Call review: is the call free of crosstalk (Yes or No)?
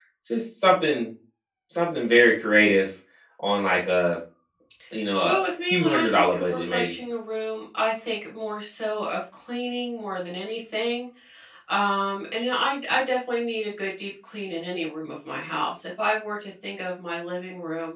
No